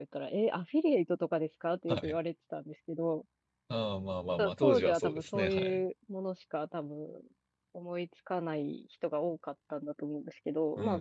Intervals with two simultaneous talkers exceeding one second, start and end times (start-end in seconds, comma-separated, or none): 4.4-5.8